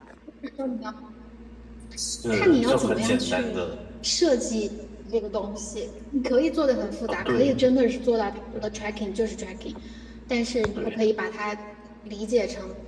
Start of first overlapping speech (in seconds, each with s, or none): 2.3 s